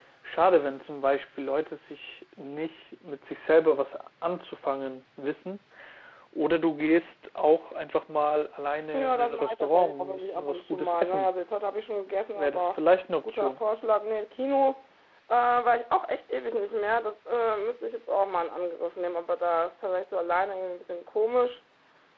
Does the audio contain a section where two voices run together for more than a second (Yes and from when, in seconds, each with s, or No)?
Yes, from 8.9 s